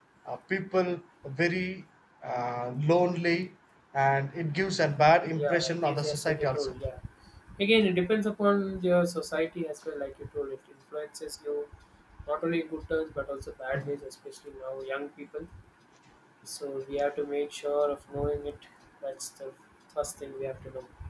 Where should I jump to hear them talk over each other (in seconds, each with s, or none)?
5.4 s